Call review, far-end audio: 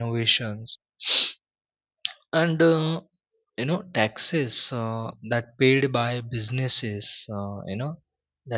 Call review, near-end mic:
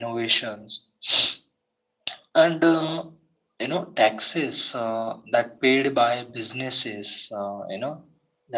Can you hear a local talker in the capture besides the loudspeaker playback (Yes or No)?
No